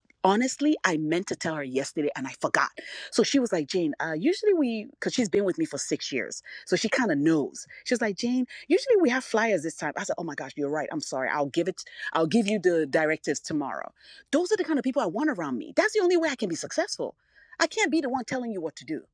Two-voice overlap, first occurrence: none

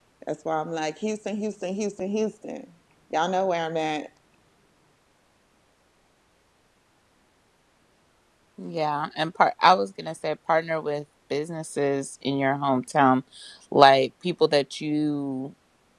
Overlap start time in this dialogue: none

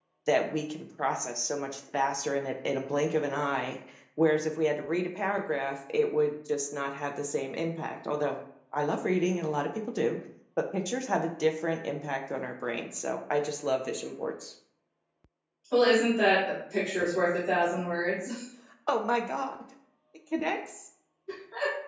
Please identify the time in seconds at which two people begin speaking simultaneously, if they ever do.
none

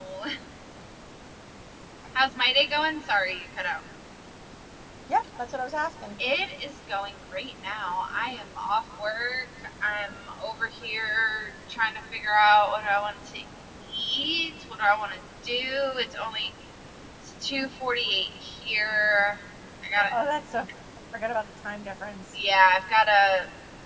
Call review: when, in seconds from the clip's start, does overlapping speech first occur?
none

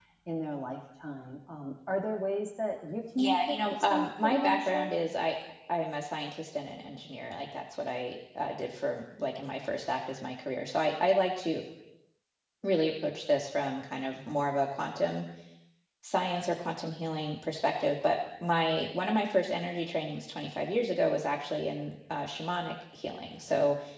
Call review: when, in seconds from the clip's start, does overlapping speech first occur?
3.2 s

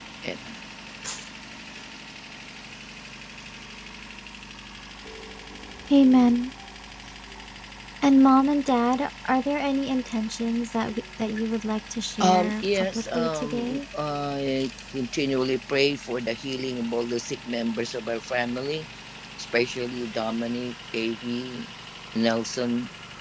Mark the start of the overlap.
12.2 s

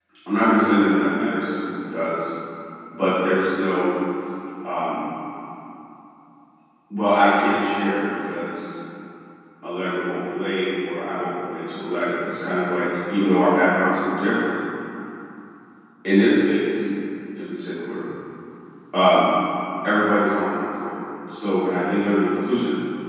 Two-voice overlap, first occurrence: none

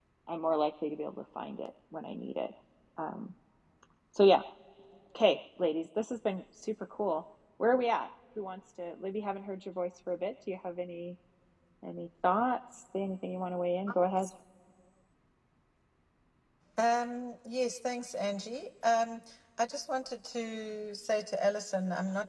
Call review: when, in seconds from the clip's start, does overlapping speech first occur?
none

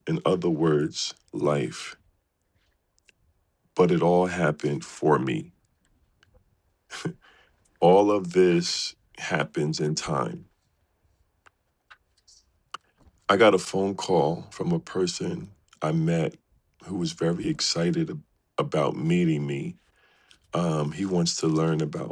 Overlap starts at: none

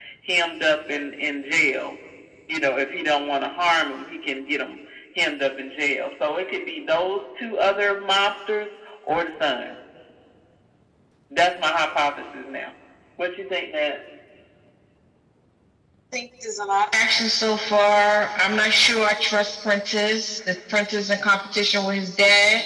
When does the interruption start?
none

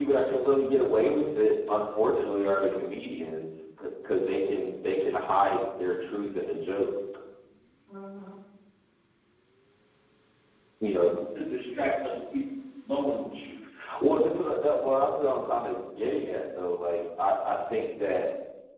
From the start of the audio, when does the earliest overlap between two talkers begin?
none

